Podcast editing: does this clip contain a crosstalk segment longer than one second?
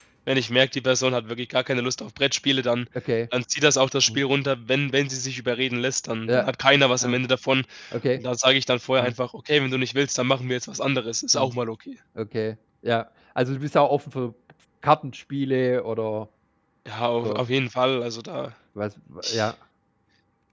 No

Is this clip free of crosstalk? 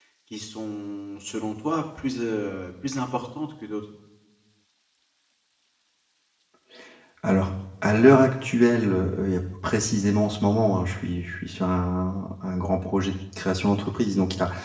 Yes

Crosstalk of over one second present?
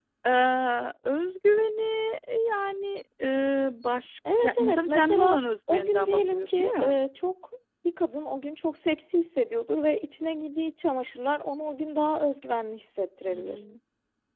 Yes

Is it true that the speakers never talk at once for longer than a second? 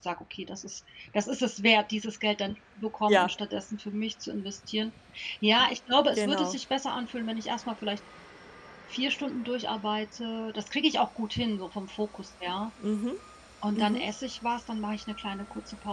Yes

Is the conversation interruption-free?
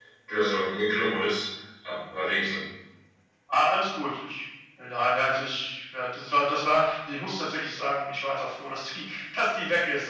Yes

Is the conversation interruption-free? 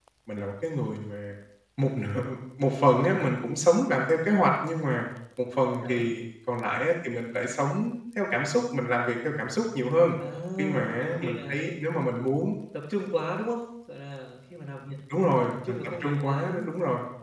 No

